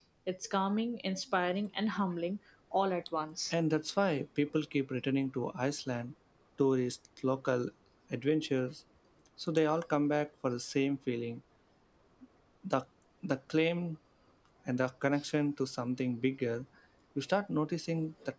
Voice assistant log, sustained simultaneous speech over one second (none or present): none